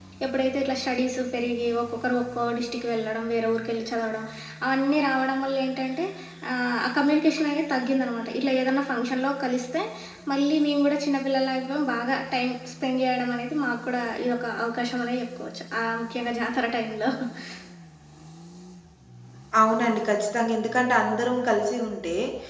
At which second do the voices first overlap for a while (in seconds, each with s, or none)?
none